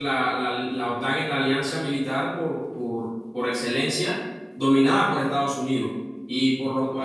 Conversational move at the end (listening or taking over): listening